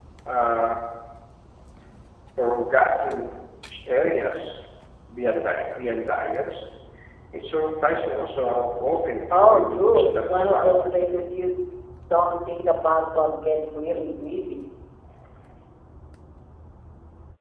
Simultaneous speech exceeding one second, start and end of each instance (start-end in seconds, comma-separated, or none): 9.3-10.8